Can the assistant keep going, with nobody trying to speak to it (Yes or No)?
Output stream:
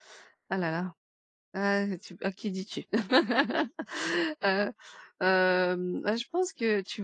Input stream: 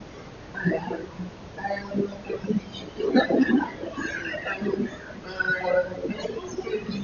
Yes